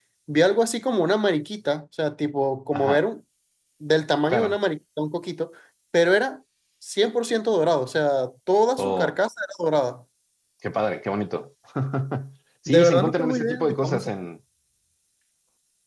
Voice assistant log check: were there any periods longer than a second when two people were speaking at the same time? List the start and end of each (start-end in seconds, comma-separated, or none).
12.7-14.1